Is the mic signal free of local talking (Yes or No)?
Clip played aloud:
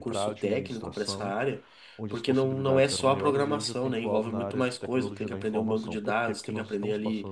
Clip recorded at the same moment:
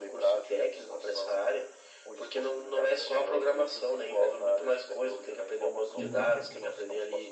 No